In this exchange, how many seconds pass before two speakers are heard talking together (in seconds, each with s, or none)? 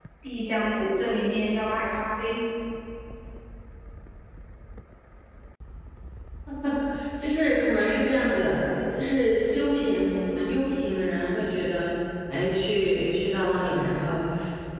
none